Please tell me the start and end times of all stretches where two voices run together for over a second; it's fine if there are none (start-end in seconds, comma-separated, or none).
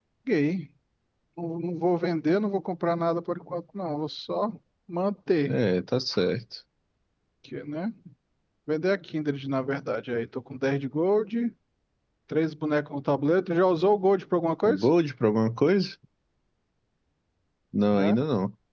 none